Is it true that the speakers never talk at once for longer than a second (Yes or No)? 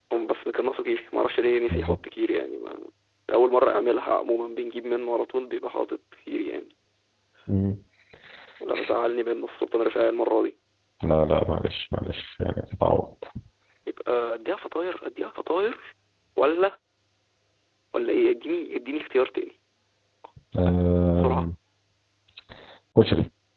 Yes